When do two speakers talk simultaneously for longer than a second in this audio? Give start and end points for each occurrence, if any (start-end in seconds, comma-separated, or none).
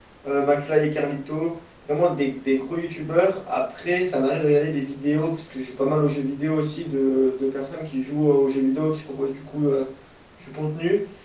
none